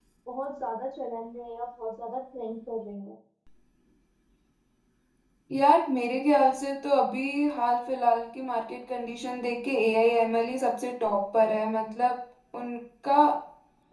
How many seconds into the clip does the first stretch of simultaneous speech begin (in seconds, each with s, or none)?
none